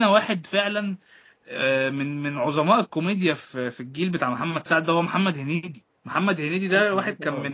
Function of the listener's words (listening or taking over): listening